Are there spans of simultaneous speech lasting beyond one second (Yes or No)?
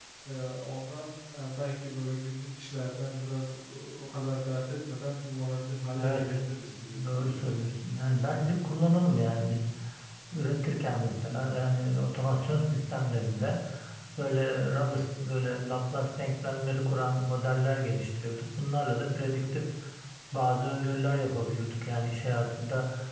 No